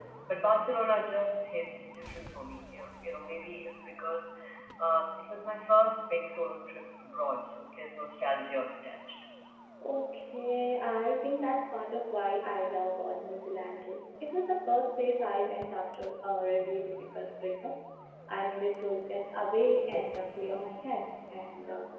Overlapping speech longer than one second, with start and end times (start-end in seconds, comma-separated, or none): none